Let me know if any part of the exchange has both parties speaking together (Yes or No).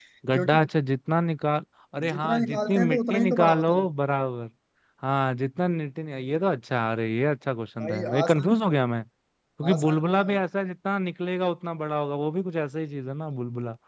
Yes